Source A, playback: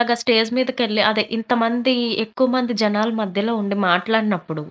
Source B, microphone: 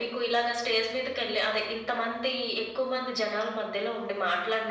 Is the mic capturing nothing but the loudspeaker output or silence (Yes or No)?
Yes